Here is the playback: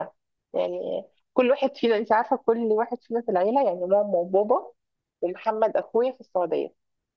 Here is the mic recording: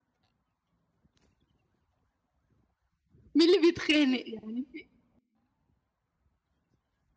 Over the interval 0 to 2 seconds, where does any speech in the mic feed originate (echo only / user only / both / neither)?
neither